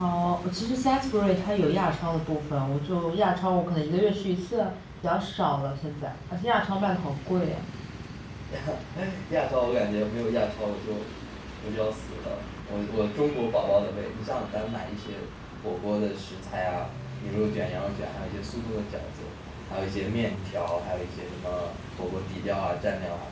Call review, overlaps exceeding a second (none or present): none